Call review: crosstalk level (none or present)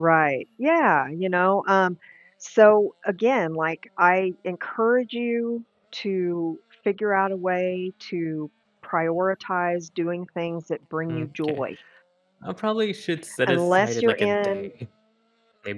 present